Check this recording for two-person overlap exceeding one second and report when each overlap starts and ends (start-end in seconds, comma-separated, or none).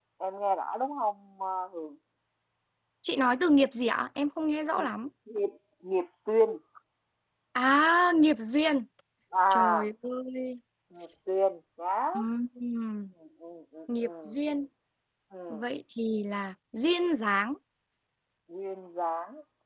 none